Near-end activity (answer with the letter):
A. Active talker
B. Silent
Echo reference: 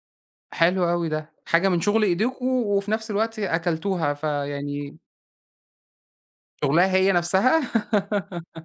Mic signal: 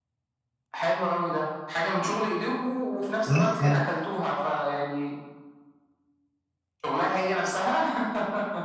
A